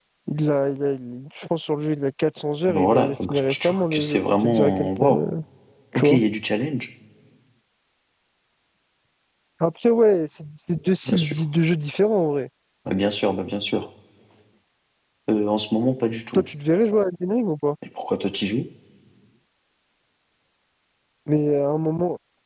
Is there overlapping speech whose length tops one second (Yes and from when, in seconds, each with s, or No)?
Yes, from 2.7 s